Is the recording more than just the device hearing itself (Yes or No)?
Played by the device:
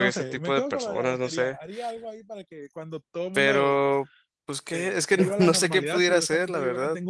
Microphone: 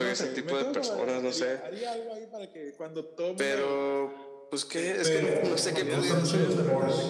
Yes